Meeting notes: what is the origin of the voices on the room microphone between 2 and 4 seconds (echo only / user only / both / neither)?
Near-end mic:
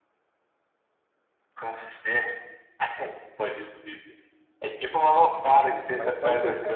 echo only